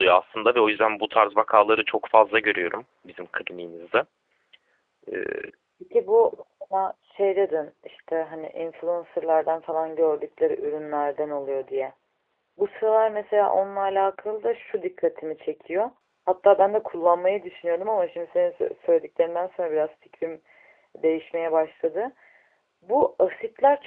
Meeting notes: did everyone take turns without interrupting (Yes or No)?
Yes